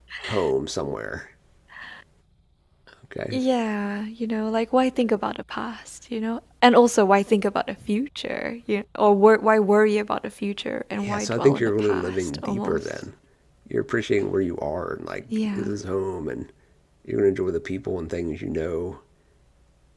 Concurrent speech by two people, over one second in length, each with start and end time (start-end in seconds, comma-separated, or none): 10.9-12.9